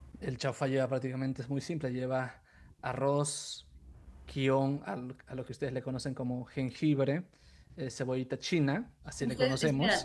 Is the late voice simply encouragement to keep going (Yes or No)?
No